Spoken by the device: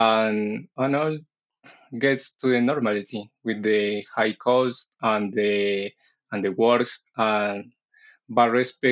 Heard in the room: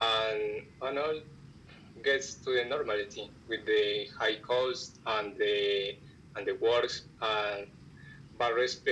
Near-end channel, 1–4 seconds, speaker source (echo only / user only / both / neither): echo only